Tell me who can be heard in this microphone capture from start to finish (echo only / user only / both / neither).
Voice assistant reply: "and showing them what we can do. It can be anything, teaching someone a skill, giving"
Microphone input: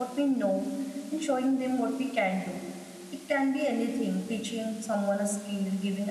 echo only